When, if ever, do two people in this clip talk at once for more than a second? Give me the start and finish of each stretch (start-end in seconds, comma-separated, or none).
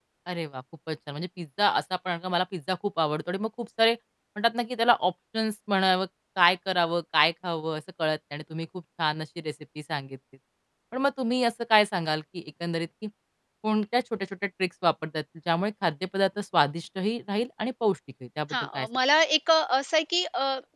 none